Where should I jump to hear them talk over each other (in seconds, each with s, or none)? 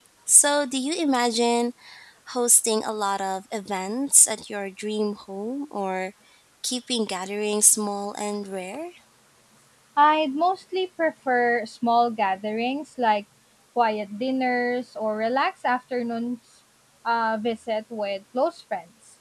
none